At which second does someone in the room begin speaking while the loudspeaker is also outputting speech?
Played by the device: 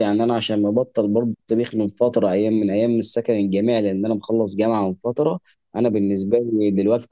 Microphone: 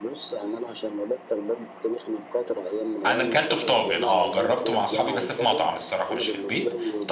3.1 s

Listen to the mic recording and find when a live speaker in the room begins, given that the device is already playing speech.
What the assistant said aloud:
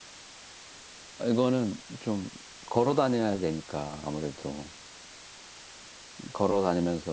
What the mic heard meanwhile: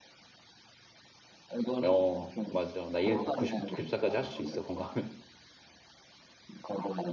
1.9 s

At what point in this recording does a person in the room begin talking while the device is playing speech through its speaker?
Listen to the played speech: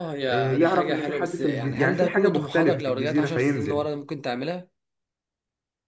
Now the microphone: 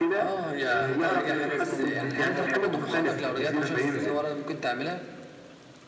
0.8 s

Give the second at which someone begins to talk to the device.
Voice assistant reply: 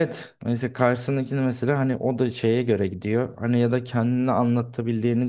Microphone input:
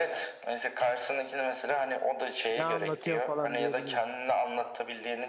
2.6 s

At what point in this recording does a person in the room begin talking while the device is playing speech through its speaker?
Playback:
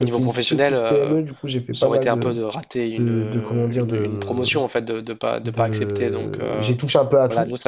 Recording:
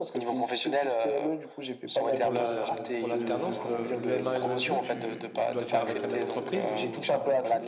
2.1 s

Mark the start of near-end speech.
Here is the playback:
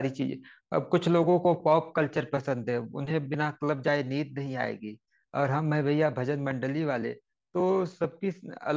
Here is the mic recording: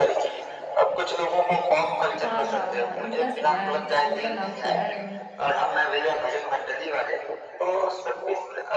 2.2 s

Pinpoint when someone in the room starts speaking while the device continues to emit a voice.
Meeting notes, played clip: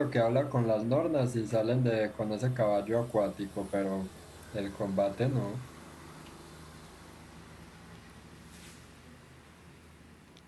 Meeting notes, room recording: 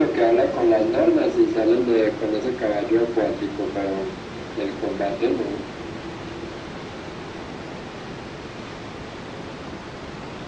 none

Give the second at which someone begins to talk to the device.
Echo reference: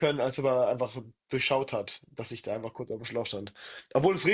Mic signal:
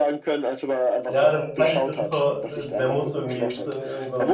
1.1 s

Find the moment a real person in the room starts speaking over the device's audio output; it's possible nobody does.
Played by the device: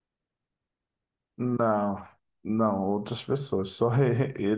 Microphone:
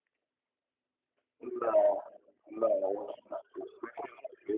none

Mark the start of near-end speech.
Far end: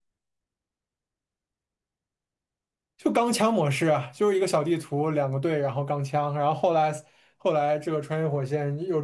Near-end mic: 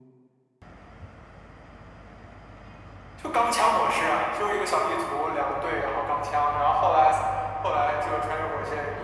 none

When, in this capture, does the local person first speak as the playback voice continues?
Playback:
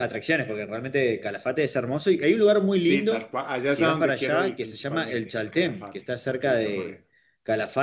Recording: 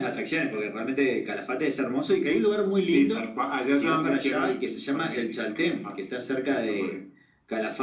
none

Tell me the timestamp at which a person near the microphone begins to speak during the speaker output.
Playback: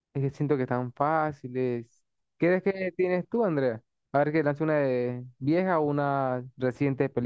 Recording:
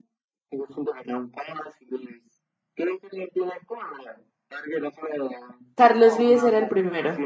5.8 s

